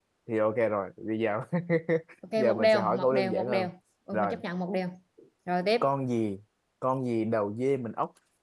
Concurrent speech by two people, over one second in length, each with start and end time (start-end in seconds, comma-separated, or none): 2.4-3.7